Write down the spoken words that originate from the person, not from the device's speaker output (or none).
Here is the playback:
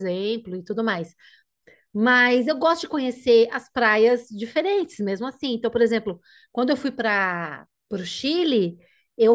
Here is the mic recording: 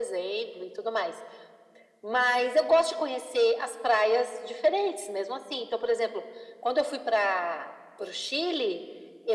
none